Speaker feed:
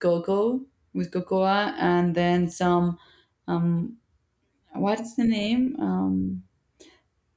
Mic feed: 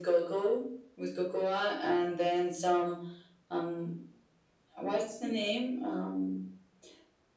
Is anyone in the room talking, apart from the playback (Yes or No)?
No